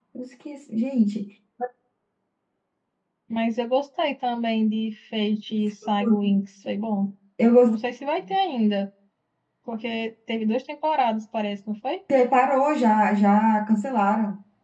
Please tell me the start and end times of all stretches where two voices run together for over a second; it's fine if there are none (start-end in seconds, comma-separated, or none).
none